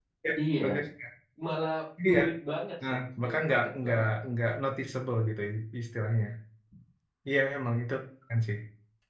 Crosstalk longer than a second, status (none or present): present